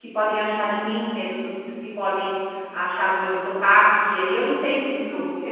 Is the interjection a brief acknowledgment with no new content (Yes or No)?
No